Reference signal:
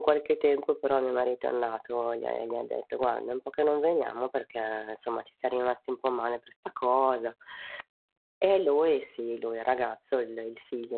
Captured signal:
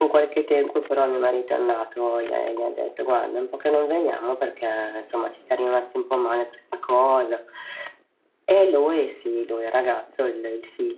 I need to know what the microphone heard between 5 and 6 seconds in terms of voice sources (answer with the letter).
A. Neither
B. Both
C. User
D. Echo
D